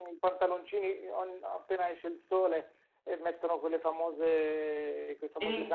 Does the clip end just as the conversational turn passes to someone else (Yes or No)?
No